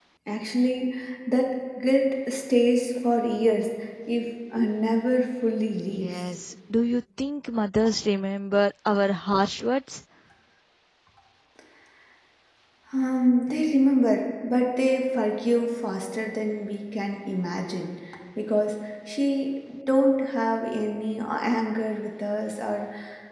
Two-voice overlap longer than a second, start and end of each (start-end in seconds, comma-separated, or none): none